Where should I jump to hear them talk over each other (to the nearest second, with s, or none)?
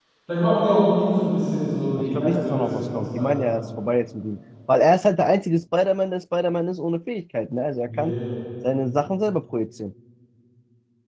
2 s